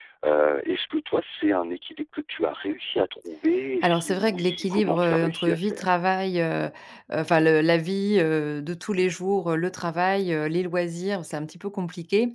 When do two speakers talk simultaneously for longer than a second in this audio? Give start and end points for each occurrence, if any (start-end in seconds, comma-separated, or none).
3.8-5.8